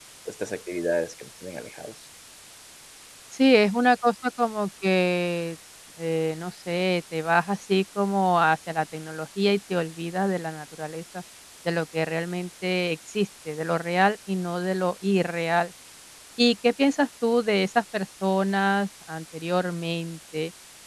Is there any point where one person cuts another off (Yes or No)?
No